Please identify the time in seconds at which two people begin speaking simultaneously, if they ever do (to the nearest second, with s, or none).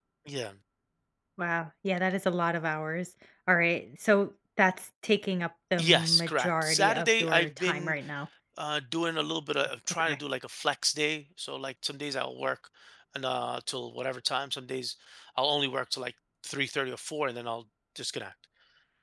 6 s